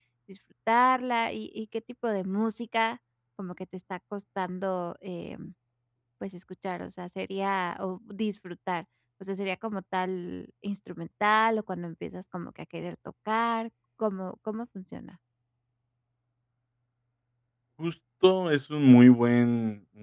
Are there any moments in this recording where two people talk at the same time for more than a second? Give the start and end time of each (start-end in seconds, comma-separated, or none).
none